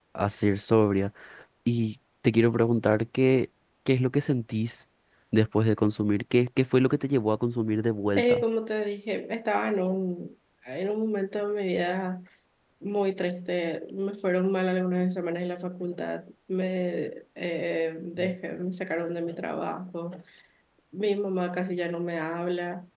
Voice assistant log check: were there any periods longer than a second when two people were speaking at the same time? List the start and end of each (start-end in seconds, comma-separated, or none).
none